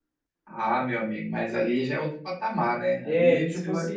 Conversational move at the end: taking over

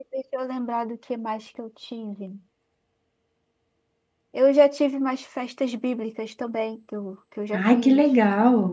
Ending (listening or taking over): taking over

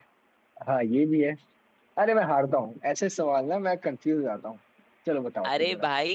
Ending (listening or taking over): taking over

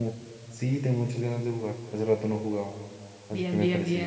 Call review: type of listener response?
taking over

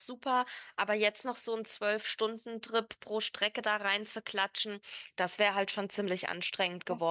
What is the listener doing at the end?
taking over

